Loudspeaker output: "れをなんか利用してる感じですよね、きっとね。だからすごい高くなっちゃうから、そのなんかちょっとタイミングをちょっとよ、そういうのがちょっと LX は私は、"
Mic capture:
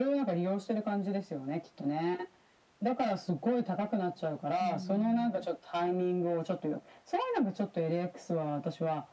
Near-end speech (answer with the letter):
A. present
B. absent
A